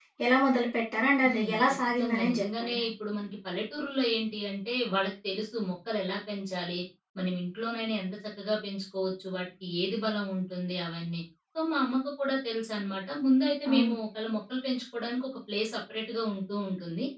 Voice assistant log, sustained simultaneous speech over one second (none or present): present